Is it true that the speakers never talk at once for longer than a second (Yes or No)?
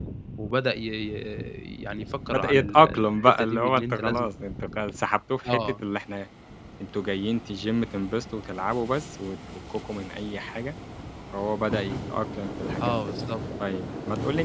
No